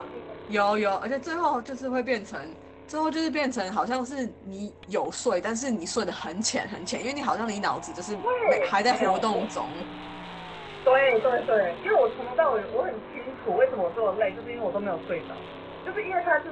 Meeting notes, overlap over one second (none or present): present